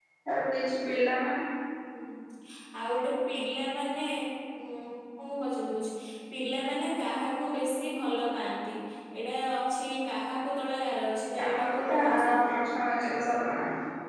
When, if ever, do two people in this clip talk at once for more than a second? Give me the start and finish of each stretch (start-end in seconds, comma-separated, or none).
11.4-12.7